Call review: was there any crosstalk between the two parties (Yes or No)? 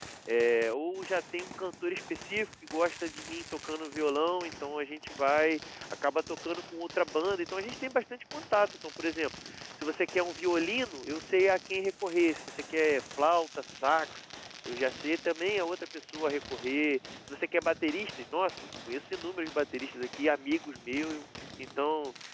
No